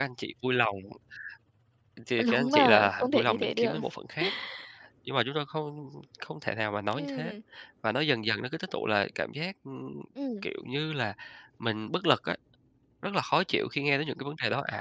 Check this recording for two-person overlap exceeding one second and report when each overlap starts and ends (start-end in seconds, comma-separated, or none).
2.3-3.8